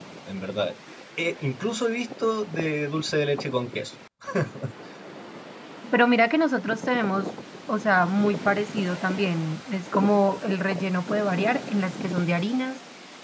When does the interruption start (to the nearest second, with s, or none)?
none